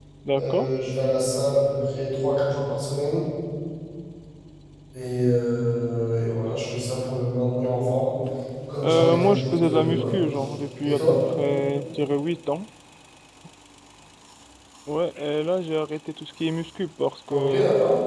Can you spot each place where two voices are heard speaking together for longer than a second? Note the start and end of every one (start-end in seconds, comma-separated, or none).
8.8-10.2